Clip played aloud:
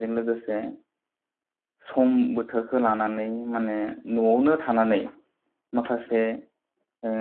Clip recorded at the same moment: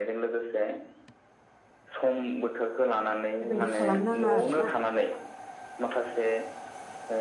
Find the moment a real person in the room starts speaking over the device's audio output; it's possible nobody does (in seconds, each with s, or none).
3.4 s